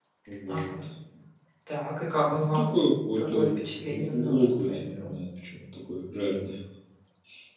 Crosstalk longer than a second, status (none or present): present